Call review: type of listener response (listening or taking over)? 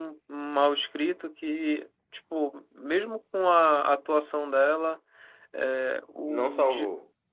listening